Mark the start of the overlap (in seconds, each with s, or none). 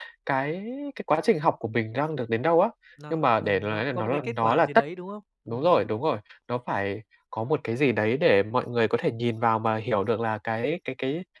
3.1 s